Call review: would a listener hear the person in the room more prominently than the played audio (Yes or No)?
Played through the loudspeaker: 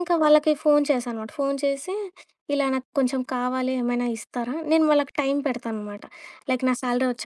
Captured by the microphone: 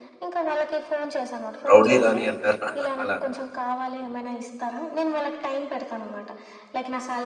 Yes